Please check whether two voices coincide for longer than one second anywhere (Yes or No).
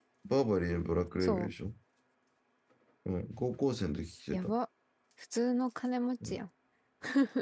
No